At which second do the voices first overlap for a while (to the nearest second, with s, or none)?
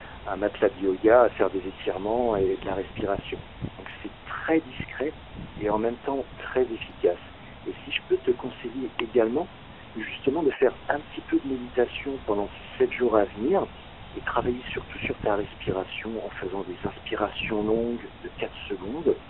none